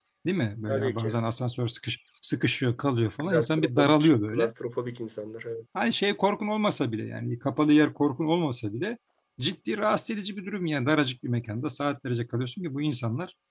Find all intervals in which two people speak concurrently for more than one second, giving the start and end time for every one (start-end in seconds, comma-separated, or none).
3.2-4.5